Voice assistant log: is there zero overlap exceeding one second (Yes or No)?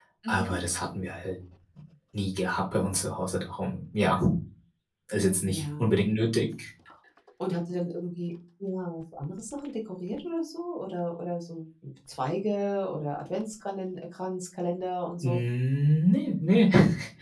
Yes